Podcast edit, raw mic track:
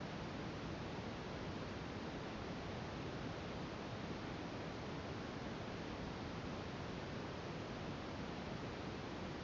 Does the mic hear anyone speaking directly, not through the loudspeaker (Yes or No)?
No